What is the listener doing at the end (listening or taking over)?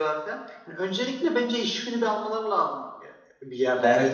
taking over